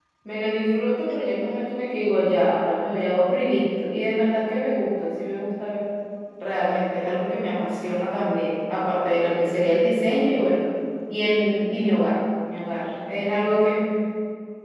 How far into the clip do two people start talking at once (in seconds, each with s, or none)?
none